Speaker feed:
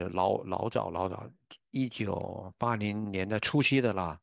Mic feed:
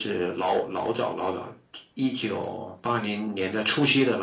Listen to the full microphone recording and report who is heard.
echo only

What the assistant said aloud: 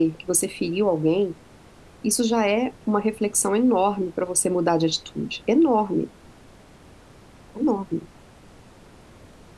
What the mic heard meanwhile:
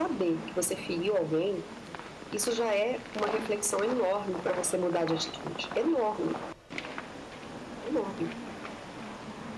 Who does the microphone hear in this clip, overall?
echo only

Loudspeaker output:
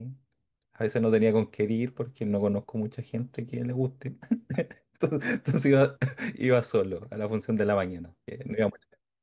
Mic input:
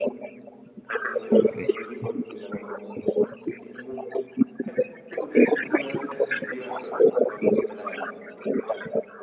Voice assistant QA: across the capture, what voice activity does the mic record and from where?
both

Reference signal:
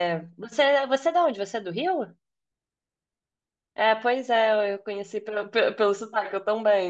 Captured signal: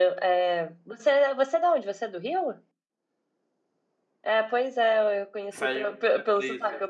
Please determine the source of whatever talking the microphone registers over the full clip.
both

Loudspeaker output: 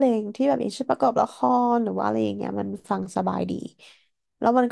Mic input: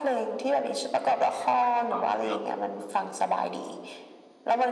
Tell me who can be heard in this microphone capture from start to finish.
both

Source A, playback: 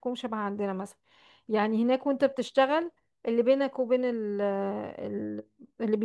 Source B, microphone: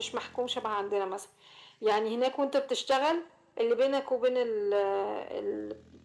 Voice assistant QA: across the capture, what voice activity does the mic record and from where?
echo only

